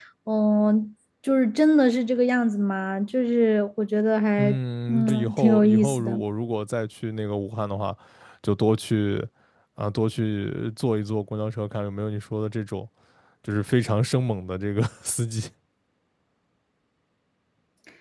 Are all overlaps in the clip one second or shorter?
No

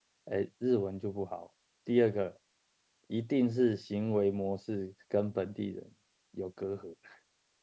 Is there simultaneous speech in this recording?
No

